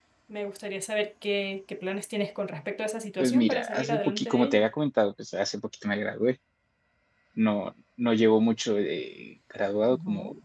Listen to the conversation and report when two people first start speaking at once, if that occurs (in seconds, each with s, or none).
3.2 s